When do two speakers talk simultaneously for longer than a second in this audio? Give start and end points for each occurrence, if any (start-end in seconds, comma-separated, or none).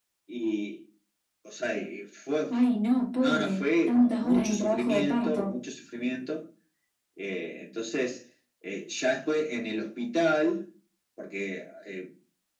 3.2-5.5